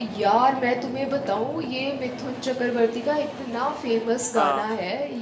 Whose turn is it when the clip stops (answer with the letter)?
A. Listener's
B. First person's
B